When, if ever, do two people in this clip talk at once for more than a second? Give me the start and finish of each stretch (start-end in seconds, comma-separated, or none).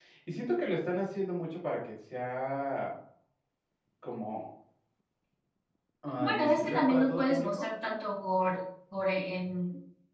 6.2-7.7